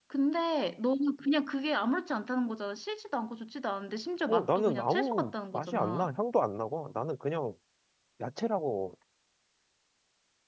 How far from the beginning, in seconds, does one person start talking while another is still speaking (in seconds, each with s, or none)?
4.3 s